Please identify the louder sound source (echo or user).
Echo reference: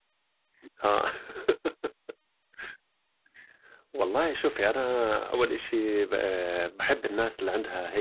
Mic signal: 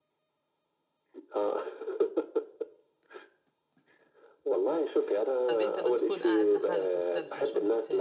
echo